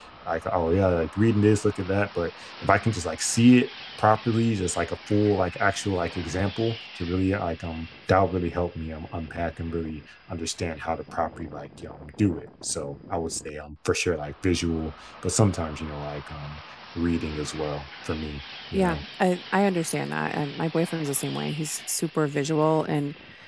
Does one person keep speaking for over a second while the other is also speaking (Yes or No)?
No